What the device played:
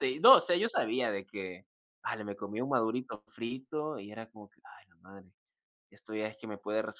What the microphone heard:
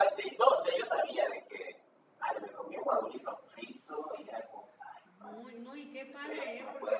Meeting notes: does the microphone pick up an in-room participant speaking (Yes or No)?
Yes